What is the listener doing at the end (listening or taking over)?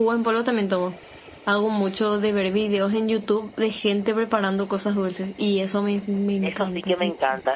taking over